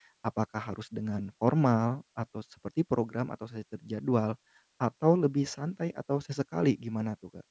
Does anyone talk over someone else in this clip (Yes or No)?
No